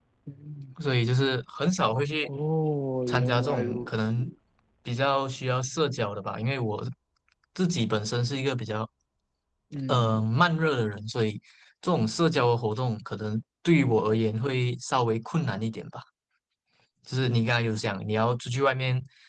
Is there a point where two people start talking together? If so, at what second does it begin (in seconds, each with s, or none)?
3.1 s